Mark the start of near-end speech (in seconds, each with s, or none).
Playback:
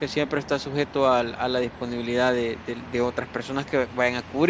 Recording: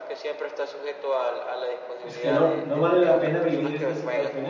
2.0 s